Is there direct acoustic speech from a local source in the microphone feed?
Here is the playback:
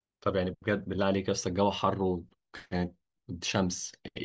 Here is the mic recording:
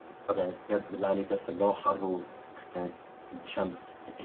No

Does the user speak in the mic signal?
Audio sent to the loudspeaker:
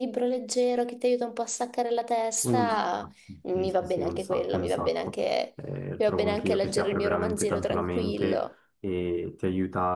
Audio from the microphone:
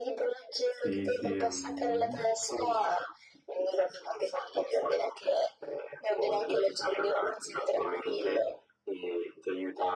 Yes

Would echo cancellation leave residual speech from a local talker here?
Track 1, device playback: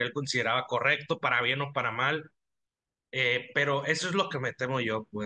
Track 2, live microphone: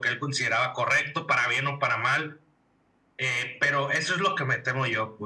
No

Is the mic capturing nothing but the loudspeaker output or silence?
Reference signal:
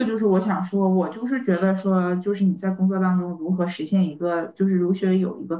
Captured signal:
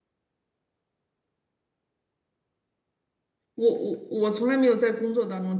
No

